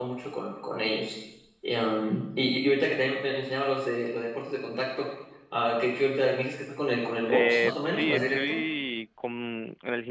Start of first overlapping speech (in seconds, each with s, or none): 7.3 s